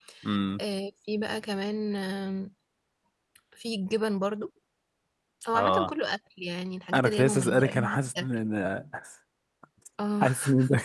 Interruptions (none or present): present